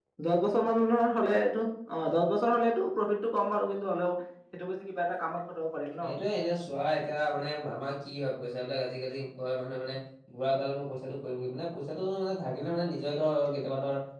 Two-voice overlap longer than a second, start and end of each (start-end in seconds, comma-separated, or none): none